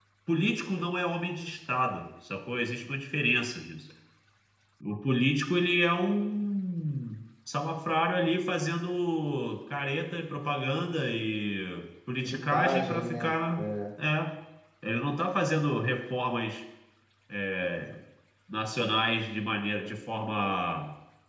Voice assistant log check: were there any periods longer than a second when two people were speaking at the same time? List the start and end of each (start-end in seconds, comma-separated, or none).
12.2-13.6